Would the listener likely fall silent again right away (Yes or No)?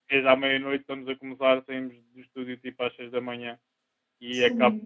Yes